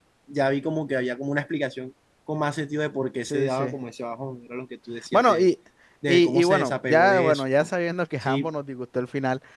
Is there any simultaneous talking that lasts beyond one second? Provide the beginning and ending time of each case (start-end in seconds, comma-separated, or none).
6.1-7.4